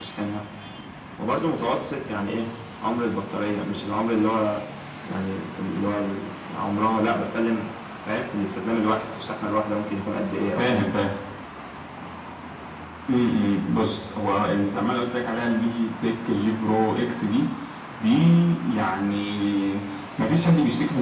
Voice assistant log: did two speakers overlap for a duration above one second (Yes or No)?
No